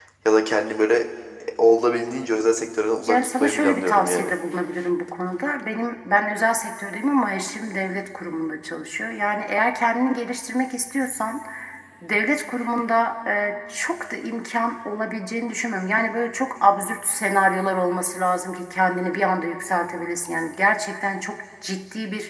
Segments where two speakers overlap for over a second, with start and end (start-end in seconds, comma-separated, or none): 3.1-4.3